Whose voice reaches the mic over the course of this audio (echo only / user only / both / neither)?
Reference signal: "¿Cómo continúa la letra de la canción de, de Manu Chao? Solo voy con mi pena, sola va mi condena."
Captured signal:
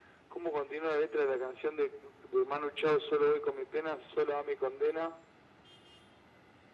echo only